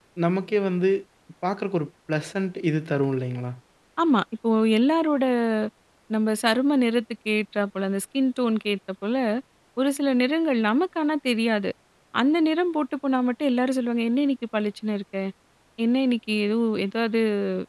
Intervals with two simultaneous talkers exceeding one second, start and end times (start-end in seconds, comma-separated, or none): none